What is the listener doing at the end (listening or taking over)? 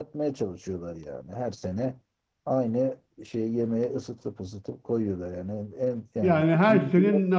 taking over